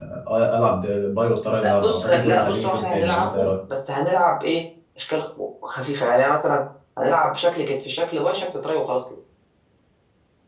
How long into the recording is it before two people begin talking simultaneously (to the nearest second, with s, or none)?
2 s